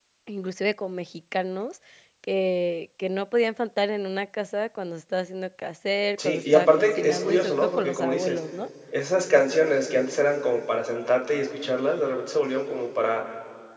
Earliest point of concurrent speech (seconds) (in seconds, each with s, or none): 6.2 s